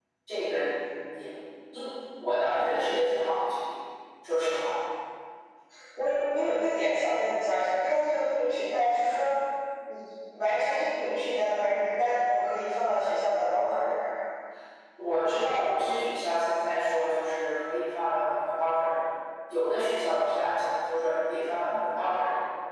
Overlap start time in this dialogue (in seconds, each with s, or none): none